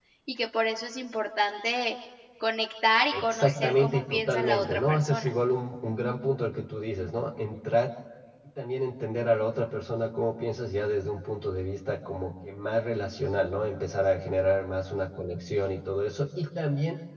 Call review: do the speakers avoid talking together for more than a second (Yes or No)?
No